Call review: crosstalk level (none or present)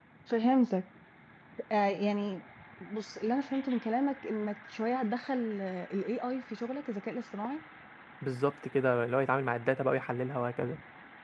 none